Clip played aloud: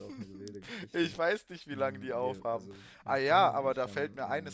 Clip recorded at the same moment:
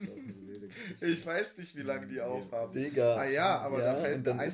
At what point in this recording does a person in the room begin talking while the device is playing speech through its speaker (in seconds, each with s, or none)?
2.7 s